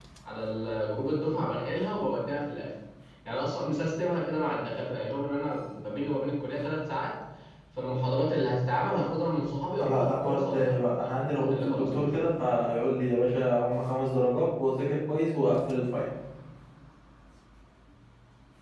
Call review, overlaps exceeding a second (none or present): present